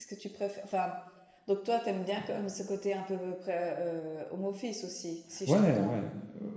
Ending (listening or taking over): taking over